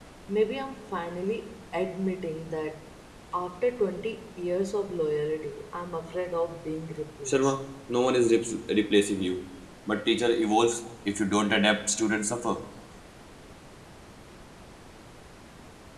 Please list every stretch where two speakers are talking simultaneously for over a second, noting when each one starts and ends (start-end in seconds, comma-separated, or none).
none